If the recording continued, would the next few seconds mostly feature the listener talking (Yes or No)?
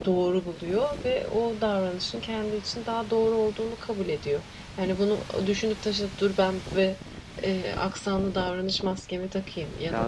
No